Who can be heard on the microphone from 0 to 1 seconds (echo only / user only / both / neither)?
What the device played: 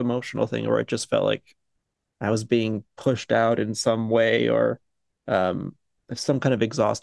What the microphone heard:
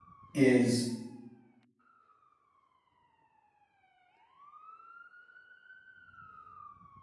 user only